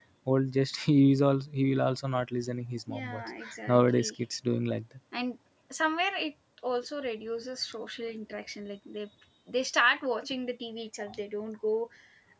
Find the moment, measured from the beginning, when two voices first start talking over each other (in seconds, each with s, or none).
2.9 s